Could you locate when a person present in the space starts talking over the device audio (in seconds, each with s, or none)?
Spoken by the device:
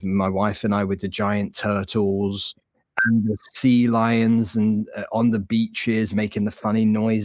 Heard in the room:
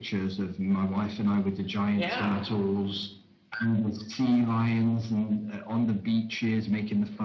1.9 s